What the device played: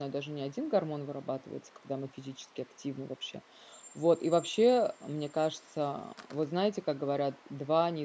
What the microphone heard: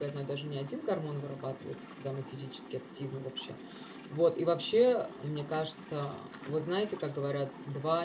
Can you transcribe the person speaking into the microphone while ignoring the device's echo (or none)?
none